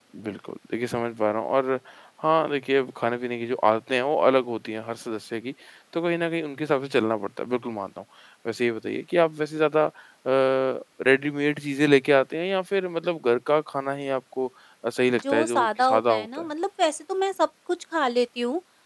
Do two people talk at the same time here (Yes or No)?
Yes